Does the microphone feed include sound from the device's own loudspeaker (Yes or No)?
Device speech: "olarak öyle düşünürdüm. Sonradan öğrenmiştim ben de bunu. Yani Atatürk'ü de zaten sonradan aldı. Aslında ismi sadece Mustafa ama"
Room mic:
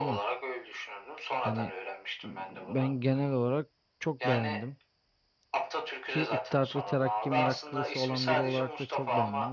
Yes